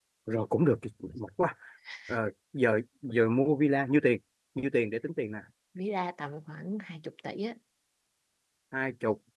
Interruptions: none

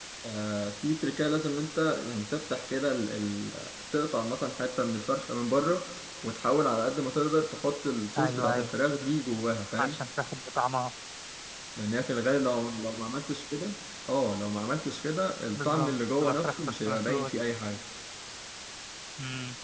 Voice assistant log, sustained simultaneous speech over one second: present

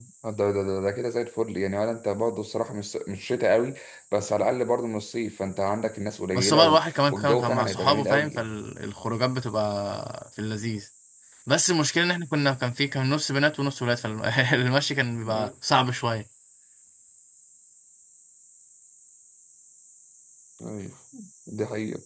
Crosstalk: present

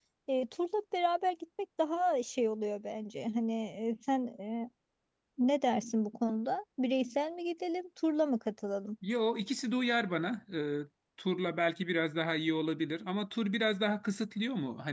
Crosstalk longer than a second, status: none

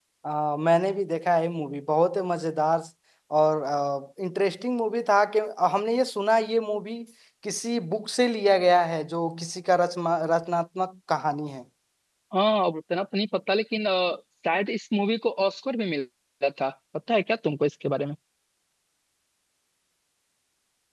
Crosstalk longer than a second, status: none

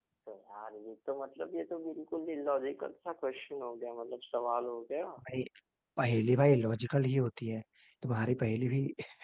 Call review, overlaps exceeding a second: none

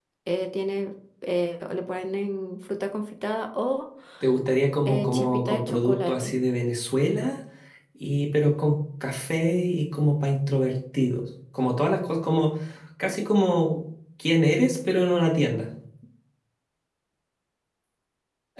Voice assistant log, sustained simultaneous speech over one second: present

